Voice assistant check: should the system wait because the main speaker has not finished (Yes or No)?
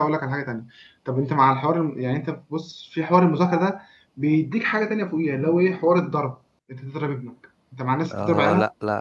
No